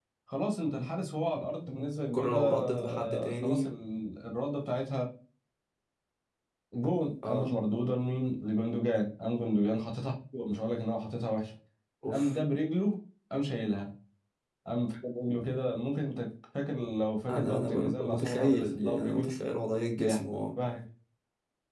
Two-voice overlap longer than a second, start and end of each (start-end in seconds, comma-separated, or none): 2.1-3.7, 17.3-19.3